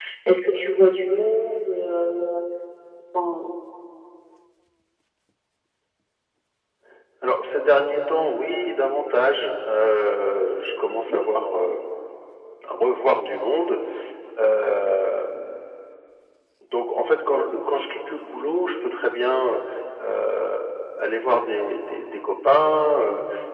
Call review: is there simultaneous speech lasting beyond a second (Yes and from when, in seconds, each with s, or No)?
No